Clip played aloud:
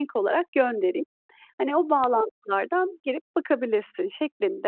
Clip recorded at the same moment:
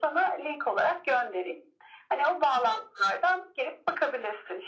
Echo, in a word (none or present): present